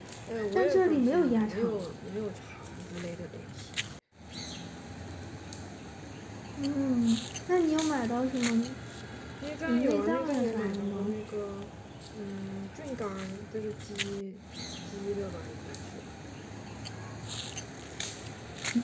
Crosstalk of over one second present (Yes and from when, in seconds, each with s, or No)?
Yes, from 0.6 s